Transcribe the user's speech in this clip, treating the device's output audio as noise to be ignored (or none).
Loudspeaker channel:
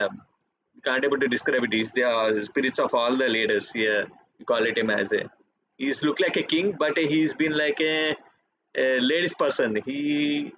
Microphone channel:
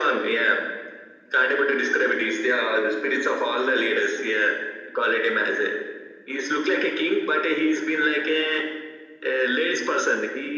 none